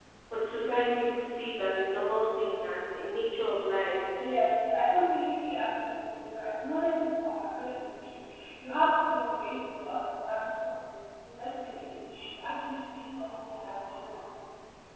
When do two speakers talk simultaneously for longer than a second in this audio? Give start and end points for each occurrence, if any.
none

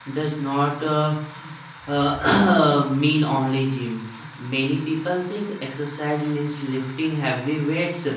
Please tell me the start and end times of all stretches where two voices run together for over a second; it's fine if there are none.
none

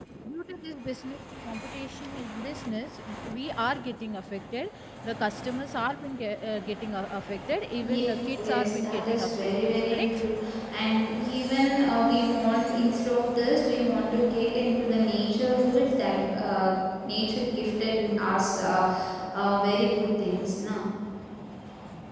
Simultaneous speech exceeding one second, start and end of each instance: 8.4-10.3

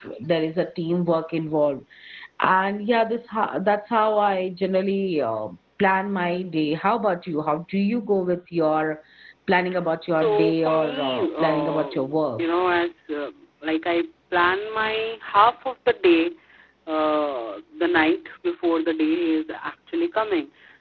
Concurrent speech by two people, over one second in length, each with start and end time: 10.1-11.9

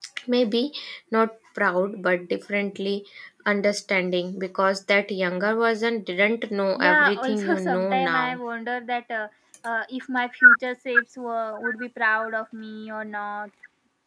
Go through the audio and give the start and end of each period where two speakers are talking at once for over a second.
6.8-8.4

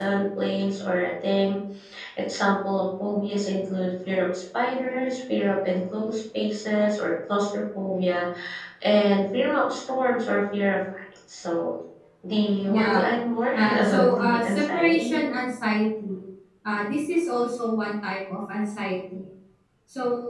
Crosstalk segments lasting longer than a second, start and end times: 13.5-15.3

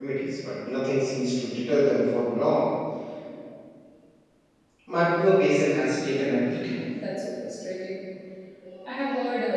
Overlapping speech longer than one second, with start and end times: none

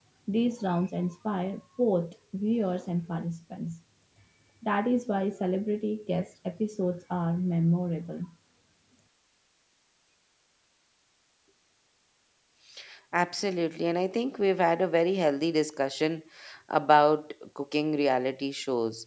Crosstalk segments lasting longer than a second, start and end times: none

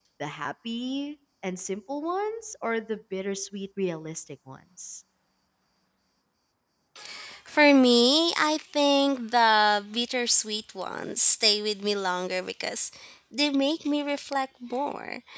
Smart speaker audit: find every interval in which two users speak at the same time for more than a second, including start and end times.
none

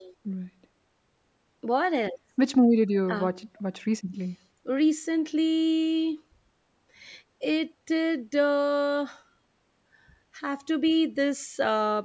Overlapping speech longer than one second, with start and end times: none

